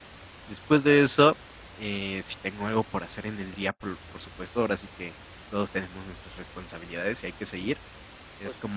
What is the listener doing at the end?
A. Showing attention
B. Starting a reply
A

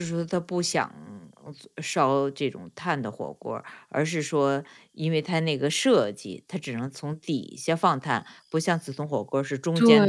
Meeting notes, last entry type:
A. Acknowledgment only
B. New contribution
B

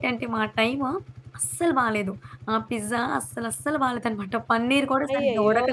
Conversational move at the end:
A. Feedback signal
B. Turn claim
B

